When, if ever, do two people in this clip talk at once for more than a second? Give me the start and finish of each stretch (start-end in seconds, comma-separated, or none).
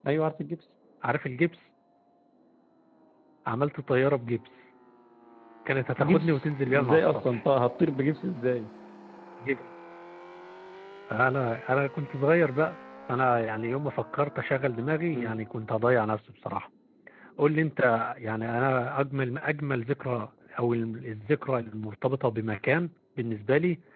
6.0-7.4